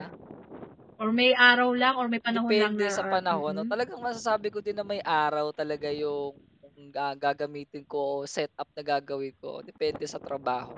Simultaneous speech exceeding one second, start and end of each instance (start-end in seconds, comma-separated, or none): 2.5-3.7